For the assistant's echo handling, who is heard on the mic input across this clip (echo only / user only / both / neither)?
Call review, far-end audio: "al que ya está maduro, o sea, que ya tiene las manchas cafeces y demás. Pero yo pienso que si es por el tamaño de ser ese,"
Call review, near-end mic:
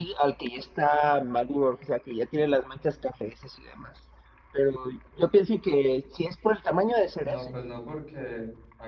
both